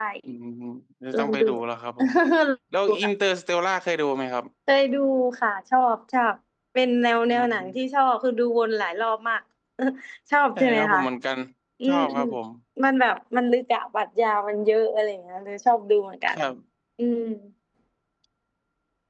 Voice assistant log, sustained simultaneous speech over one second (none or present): none